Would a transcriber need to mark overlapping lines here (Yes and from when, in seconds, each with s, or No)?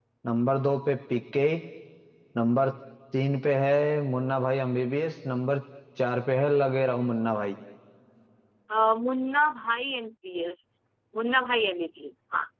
No